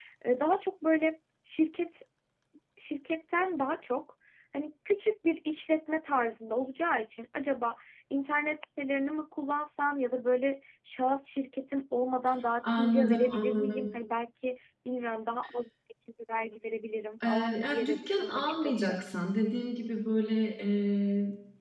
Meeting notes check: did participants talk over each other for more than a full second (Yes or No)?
Yes